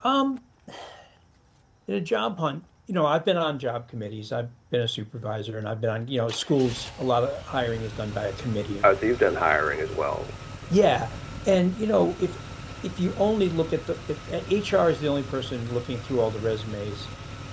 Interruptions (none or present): none